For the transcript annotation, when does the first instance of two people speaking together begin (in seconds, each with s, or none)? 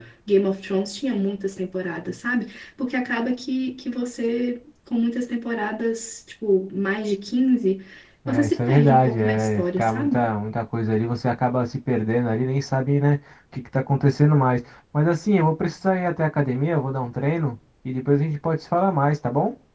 8.3 s